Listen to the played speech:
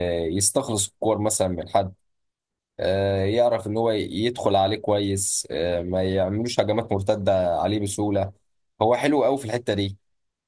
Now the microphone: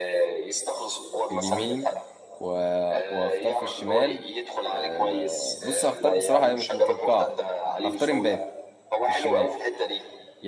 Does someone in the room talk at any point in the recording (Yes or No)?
Yes